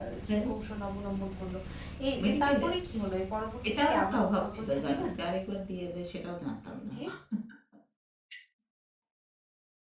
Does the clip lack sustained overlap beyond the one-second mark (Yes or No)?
No